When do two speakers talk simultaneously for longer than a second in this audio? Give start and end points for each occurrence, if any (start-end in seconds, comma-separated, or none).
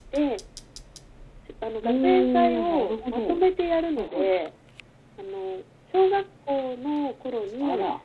1.8-3.4